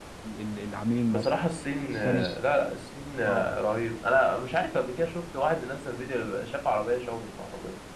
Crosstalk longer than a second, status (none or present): none